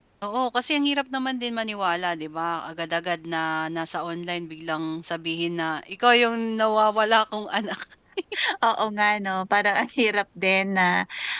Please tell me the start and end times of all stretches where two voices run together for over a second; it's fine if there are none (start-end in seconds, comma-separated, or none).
none